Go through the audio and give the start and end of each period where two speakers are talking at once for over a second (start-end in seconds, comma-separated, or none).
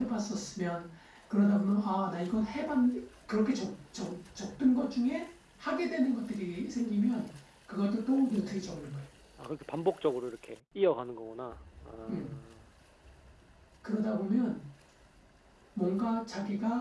none